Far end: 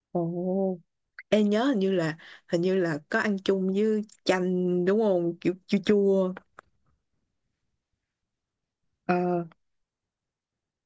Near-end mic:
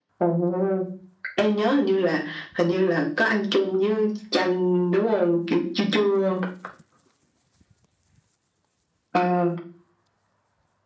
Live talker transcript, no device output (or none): none